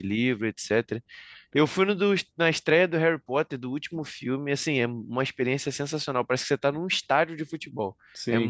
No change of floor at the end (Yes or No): No